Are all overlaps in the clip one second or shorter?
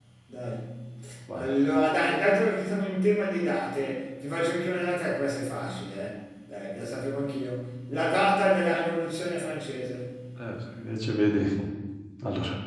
Yes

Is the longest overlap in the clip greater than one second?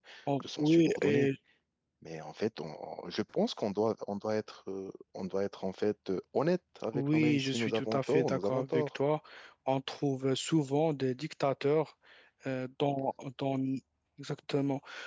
Yes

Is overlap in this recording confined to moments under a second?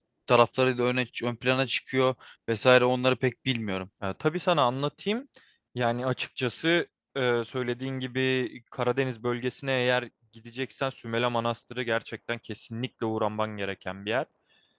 Yes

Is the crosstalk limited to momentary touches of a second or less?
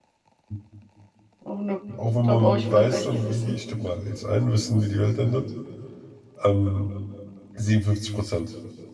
No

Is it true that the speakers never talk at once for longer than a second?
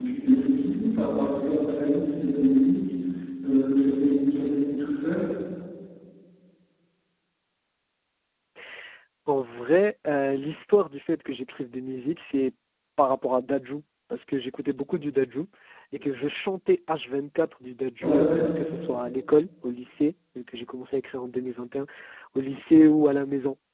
Yes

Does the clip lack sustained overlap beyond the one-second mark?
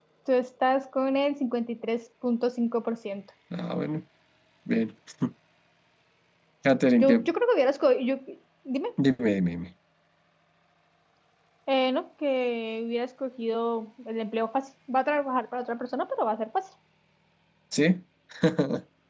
Yes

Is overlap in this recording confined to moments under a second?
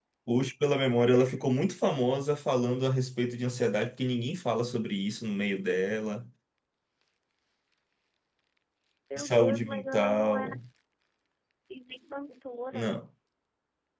No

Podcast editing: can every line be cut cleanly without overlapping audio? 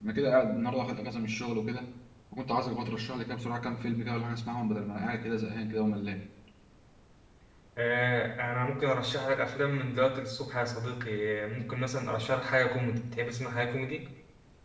Yes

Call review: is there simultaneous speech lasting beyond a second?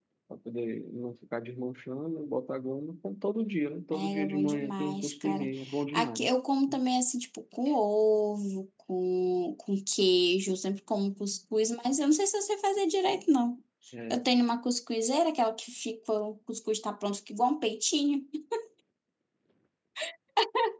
Yes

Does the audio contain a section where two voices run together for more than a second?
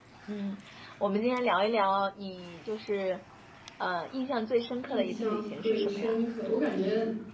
Yes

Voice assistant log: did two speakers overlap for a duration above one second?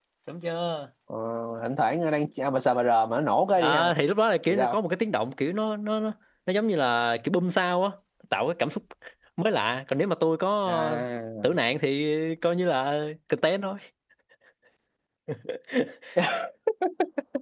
No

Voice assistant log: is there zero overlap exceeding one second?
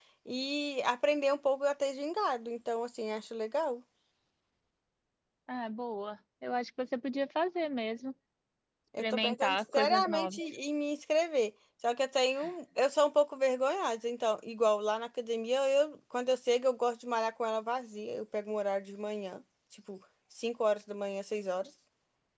No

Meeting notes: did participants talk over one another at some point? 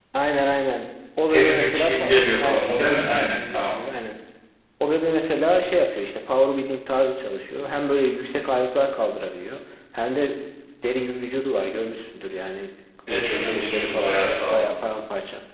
Yes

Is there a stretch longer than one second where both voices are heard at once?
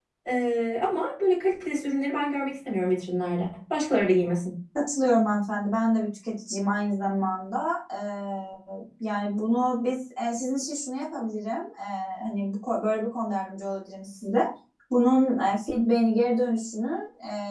No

